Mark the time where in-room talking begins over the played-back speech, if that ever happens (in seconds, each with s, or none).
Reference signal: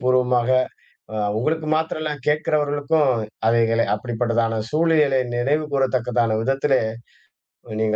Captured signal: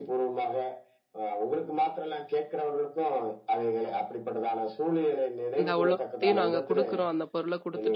5.6 s